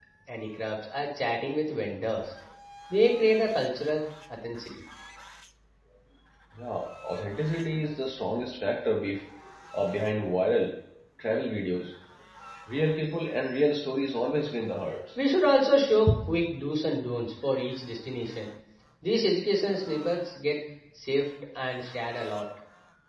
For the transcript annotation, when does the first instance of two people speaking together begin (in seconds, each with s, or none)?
none